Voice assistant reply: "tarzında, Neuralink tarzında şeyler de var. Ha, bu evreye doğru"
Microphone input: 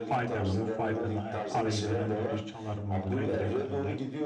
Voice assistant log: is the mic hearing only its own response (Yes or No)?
No